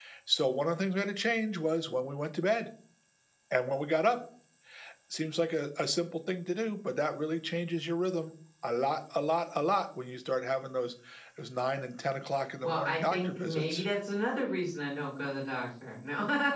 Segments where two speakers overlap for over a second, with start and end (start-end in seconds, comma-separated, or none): 12.6-13.8